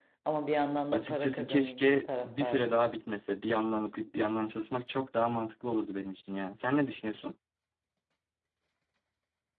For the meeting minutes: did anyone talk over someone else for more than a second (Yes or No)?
Yes